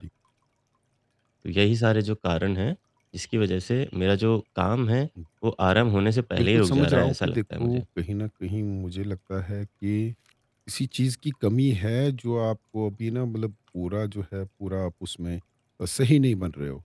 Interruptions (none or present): present